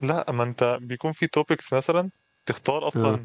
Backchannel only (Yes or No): Yes